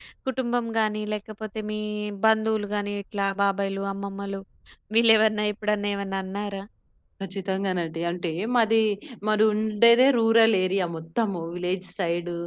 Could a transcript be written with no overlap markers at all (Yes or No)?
Yes